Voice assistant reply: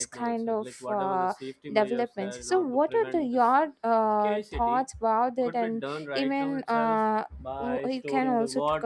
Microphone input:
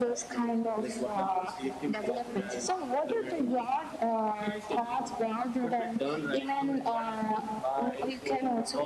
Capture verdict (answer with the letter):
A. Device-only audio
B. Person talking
A